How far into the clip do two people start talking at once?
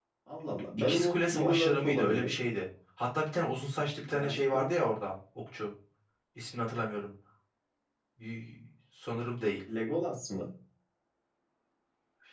0.8 s

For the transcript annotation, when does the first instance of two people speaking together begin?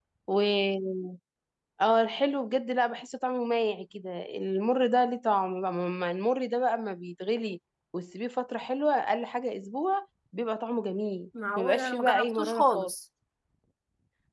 11.4 s

